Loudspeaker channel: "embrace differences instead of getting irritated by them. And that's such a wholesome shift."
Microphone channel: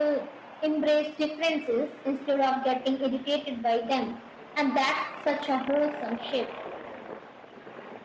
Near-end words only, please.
none

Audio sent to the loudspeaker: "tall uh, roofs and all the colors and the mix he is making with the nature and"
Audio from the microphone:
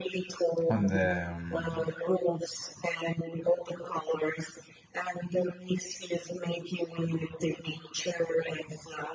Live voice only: on the um,

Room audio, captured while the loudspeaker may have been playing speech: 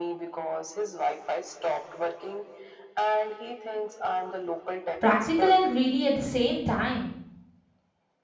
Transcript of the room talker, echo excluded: Practical and greedy at the same time.

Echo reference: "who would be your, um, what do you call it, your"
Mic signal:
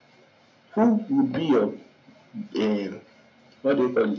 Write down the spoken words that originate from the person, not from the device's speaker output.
none

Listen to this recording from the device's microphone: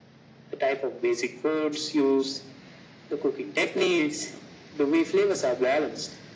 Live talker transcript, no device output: none

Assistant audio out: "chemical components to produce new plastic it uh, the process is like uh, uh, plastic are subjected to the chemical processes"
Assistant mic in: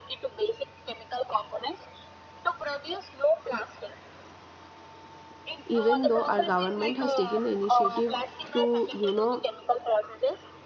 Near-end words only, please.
even though our government has taken the initiative to you know

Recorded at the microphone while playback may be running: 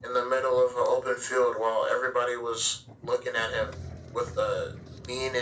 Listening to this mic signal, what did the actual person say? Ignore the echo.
none

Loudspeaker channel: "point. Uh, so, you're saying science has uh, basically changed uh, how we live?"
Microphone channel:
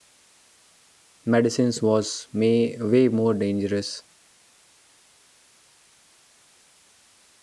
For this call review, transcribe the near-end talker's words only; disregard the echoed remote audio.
medicines was may, way more dangerous.

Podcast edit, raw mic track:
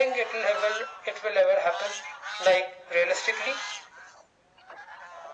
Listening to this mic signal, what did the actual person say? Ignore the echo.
none

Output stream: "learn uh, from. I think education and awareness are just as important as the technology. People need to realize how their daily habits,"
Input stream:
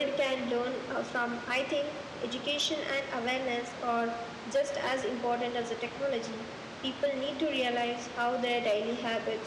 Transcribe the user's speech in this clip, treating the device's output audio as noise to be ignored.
none

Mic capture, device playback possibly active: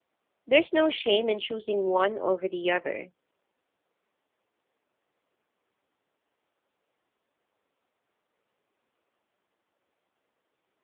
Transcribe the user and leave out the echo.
There's no shame in choosing one over the other,

